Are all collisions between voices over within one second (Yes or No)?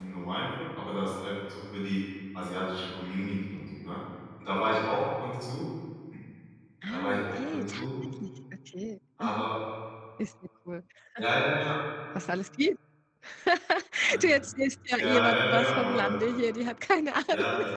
No